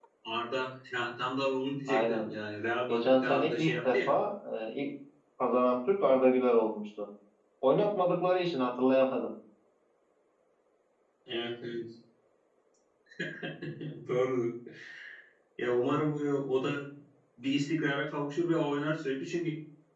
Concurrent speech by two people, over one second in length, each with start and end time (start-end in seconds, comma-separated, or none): 2.9-4.1